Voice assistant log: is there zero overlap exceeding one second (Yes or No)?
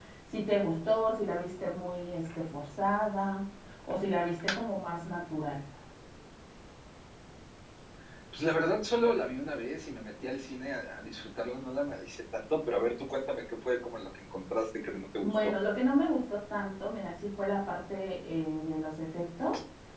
Yes